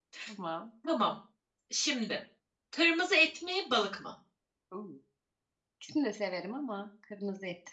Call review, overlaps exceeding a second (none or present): none